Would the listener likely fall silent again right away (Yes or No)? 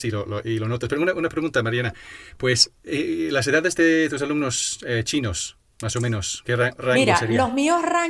No